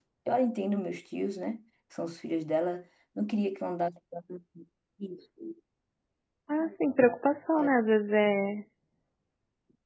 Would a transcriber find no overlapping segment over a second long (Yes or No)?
Yes